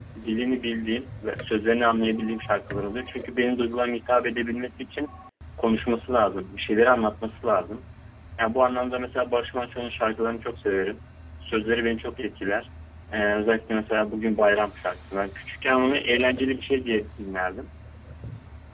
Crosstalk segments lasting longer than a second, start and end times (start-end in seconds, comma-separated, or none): none